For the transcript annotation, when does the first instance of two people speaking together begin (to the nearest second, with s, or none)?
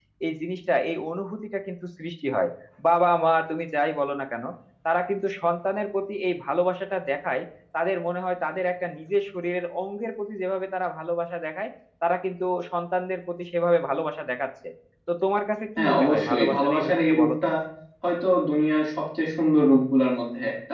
16 s